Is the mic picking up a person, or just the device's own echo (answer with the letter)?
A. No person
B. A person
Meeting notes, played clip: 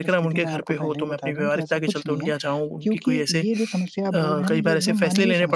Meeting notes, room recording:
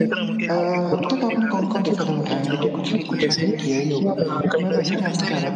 B